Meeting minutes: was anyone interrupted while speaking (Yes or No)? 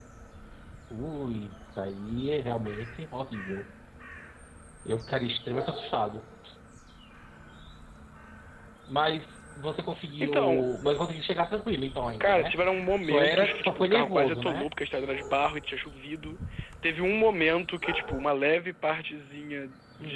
Yes